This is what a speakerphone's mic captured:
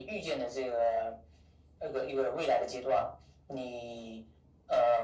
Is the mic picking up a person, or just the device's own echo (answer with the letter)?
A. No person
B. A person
A